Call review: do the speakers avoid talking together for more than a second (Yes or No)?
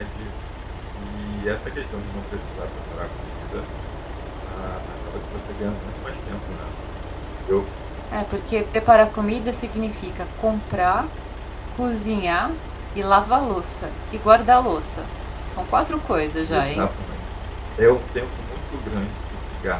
Yes